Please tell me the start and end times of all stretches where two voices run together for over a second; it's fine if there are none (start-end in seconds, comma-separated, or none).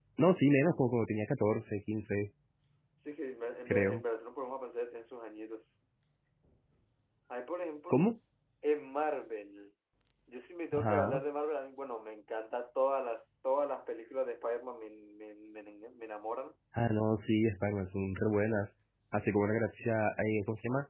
none